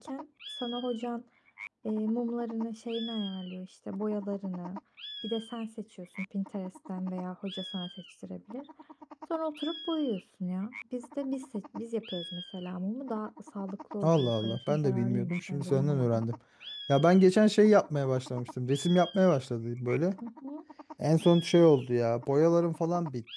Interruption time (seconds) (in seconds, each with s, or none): 14.0 s